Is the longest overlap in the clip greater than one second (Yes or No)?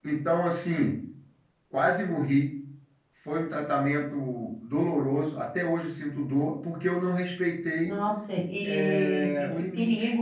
Yes